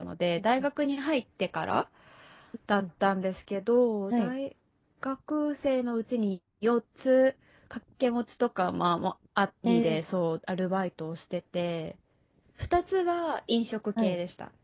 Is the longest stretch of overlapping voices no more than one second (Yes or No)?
Yes